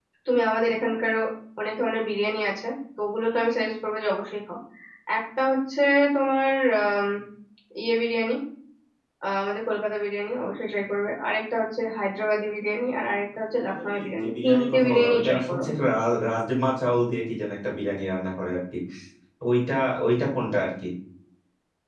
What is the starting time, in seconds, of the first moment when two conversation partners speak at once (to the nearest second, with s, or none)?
14 s